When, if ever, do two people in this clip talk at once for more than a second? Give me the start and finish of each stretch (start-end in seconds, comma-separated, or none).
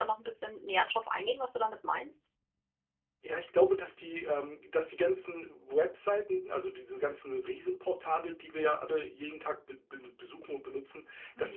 none